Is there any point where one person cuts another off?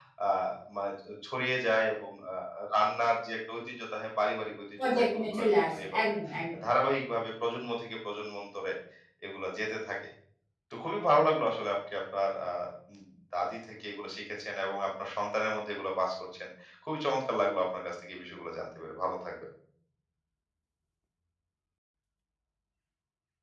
Yes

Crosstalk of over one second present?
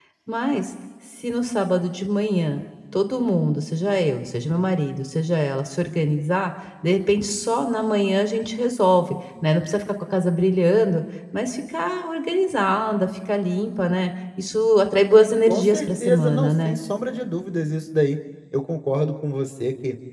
Yes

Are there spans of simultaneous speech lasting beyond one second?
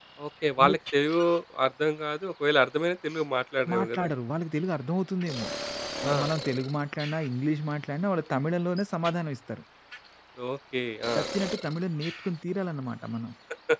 No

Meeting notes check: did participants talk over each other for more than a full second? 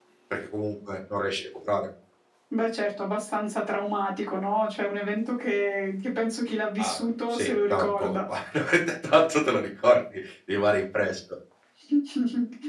Yes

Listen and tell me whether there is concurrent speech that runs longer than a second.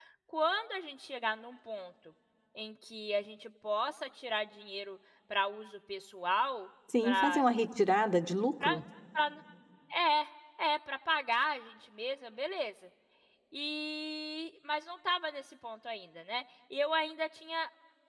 No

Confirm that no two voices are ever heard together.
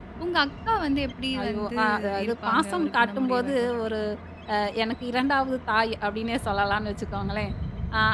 No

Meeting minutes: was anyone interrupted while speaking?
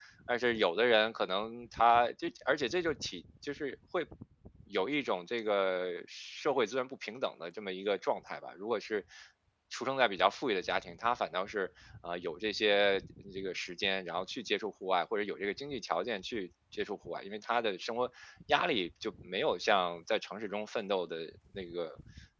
No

